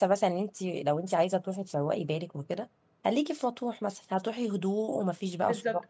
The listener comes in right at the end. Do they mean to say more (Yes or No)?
Yes